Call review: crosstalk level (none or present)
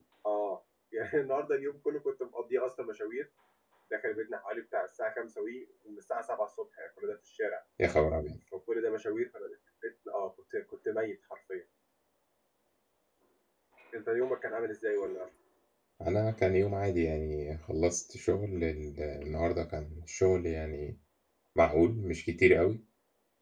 none